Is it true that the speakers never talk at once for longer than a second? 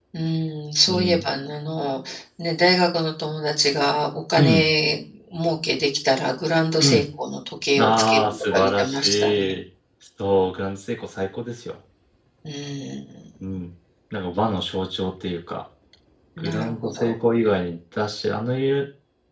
No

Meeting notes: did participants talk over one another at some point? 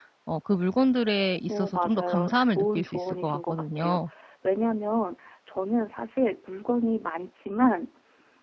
Yes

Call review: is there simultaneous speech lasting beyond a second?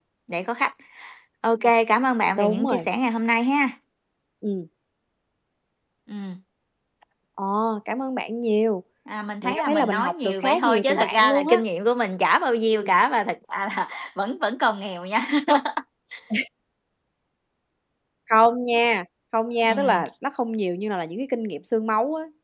Yes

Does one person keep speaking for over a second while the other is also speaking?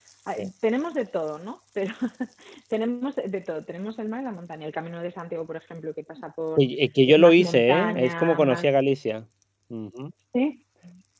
Yes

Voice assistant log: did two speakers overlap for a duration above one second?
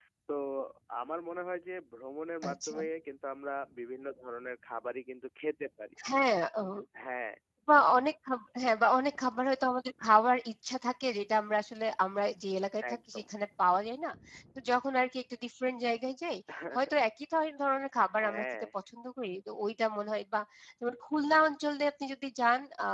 No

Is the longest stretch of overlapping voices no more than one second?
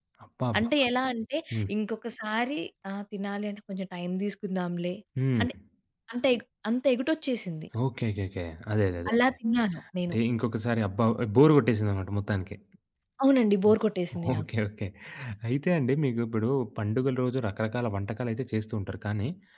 Yes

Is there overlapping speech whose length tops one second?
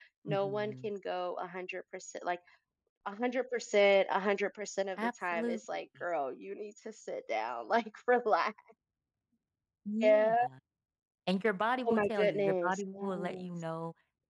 Yes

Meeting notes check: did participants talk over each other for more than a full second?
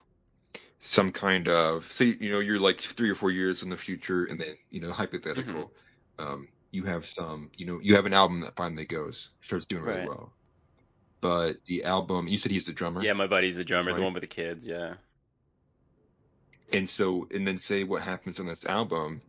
No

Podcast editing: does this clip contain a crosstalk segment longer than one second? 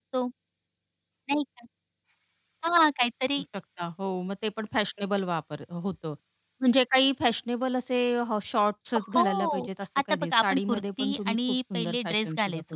Yes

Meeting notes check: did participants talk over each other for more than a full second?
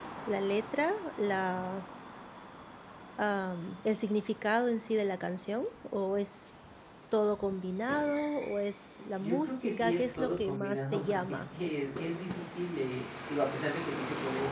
Yes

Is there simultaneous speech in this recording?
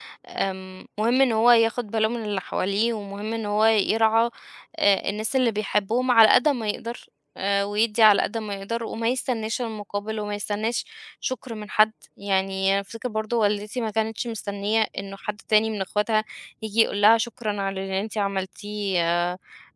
No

